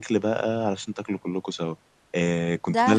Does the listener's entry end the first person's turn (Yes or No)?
No